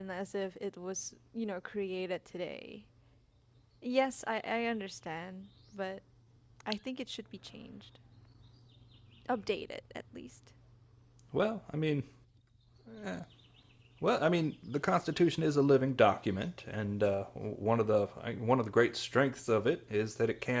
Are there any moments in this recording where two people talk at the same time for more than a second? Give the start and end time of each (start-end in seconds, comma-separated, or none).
none